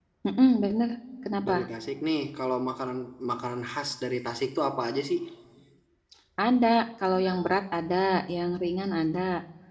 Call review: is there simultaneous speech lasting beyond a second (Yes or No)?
No